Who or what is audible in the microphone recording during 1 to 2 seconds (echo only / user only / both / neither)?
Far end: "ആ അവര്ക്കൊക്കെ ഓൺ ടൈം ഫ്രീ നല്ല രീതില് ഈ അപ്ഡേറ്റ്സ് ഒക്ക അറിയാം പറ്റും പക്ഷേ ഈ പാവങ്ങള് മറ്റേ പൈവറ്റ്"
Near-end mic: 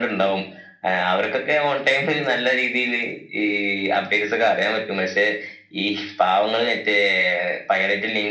echo only